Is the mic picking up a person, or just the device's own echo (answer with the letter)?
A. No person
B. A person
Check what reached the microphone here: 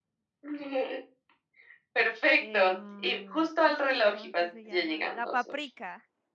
B